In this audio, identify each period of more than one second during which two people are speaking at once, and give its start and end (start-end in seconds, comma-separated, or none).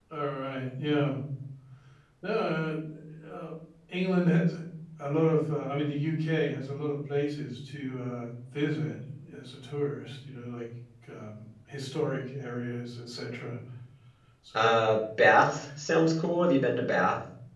none